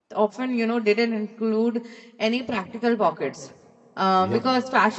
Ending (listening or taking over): listening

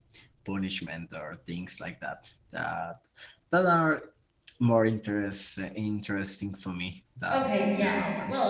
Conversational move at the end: taking over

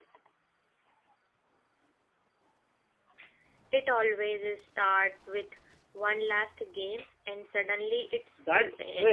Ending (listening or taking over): taking over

